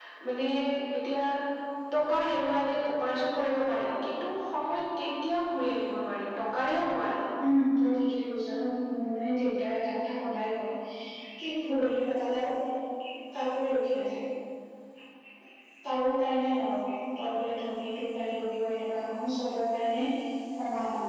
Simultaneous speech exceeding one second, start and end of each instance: none

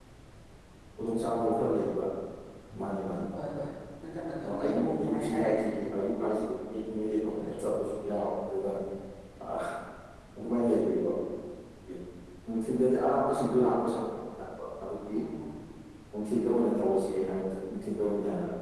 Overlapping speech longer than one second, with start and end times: 4.4-5.6

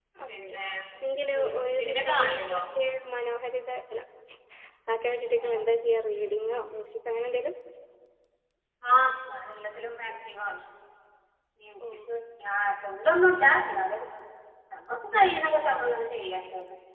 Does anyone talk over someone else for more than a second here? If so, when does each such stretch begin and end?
1.4-2.6

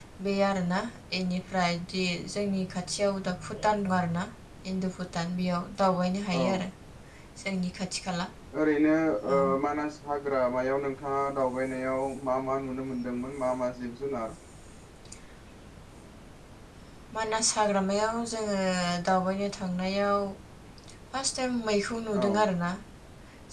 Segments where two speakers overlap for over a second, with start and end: none

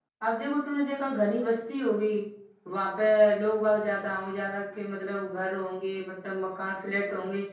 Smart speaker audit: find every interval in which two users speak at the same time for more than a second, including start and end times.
none

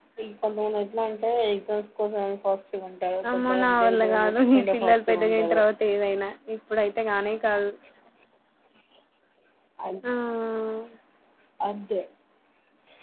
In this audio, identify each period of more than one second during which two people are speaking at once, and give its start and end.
3.3-5.6

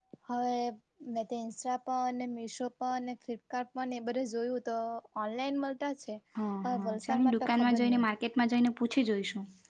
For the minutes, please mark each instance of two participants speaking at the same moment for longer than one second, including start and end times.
6.6-8.0

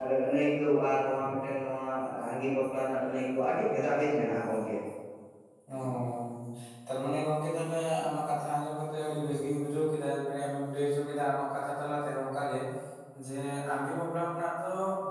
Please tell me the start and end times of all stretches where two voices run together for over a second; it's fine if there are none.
none

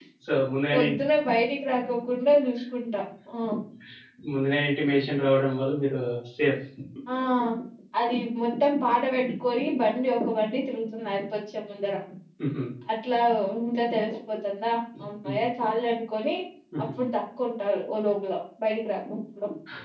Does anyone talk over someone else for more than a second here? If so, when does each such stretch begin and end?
none

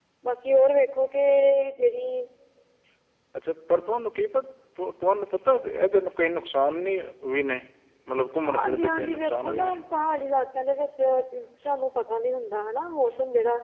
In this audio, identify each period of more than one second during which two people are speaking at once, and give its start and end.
8.5-9.8

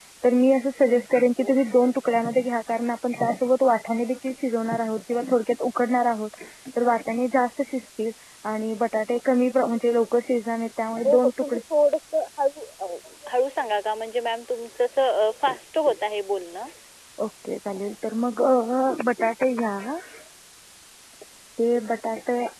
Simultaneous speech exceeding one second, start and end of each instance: none

